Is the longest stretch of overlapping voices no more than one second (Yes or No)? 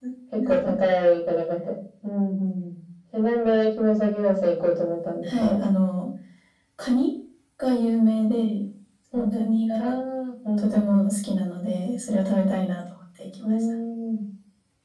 Yes